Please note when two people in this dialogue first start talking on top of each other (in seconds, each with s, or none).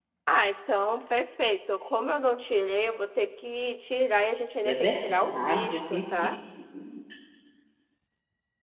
4.7 s